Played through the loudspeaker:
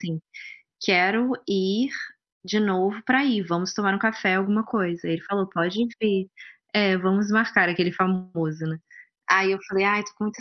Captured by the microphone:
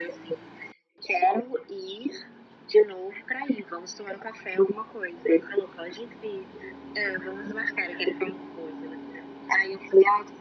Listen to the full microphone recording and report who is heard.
echo only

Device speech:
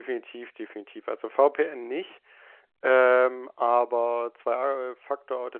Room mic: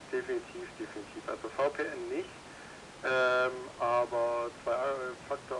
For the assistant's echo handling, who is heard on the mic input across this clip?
echo only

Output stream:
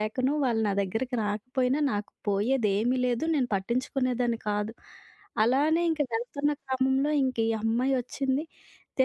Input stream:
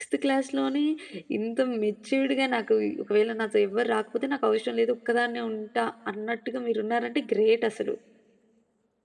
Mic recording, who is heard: user only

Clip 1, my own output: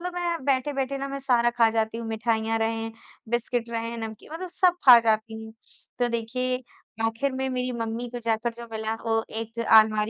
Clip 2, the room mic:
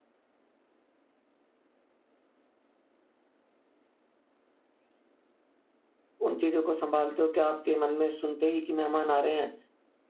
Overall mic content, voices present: user only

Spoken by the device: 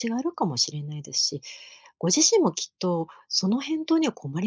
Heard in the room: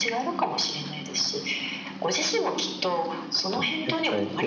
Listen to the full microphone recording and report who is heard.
both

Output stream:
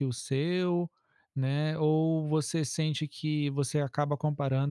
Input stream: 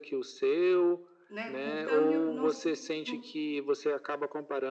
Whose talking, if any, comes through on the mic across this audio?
both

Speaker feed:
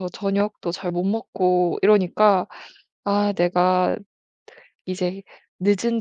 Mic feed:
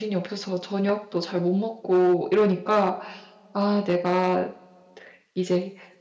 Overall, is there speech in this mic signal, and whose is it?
echo only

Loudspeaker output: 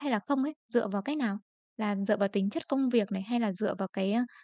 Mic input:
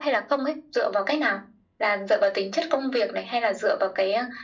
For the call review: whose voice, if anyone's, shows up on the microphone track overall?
echo only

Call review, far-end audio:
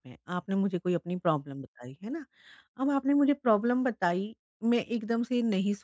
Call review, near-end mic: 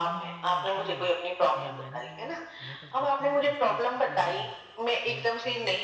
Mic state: both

